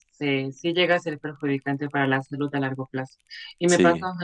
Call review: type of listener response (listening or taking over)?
listening